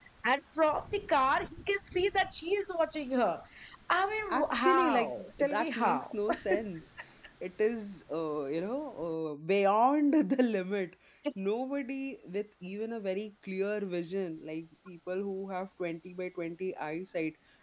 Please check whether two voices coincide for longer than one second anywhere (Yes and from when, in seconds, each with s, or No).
Yes, from 4.3 s